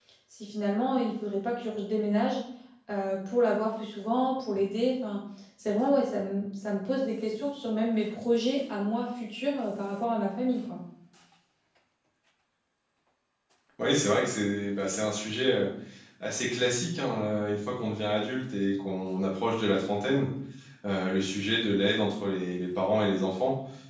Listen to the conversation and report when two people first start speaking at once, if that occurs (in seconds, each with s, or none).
none